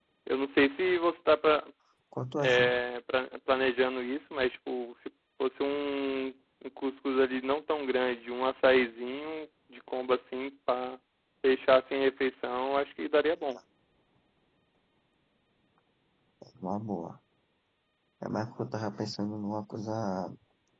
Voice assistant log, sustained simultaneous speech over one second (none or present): none